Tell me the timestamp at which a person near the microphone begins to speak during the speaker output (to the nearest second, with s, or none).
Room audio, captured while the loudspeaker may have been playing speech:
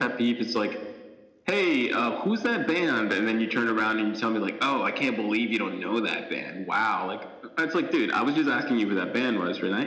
none